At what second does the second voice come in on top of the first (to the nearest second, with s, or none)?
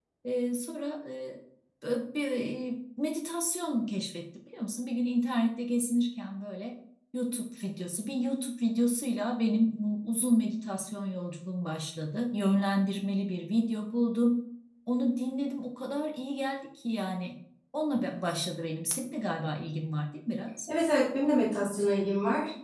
none